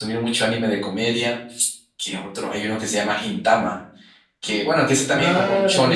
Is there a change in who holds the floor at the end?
Yes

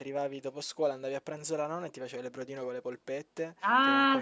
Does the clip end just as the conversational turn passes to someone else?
No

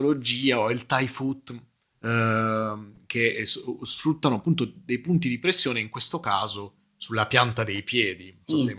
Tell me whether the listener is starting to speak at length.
Yes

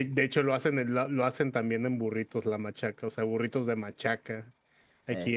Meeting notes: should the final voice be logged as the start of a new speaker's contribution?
No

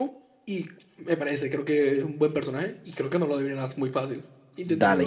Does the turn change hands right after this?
Yes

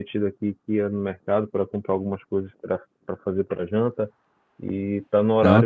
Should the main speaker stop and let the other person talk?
No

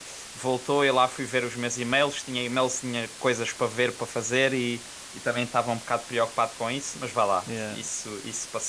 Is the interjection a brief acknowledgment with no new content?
Yes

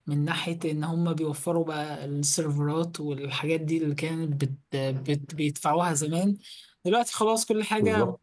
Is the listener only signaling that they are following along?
Yes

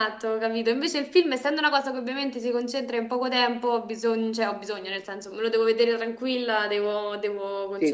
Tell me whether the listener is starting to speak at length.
Yes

